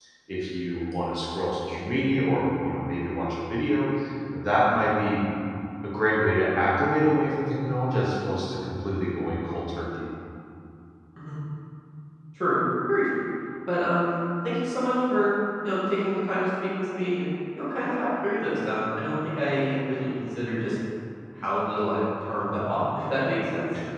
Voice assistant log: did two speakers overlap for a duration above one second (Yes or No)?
No